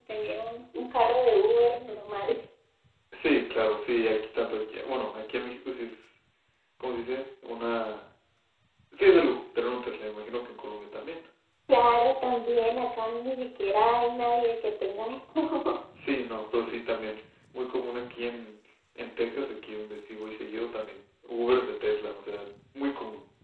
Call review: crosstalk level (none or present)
none